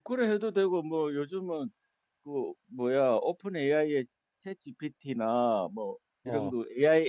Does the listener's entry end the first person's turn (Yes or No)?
No